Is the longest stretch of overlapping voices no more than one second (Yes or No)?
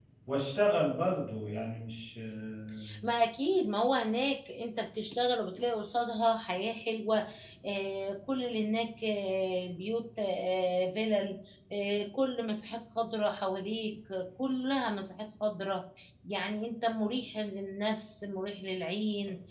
Yes